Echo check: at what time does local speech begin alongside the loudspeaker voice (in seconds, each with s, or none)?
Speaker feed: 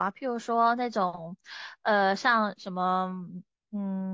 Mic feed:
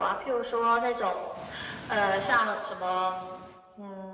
none